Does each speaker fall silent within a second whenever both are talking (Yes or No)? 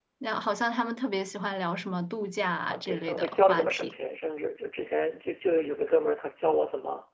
No